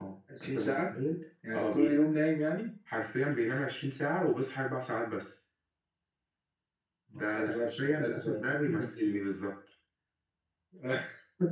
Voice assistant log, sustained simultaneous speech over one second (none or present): present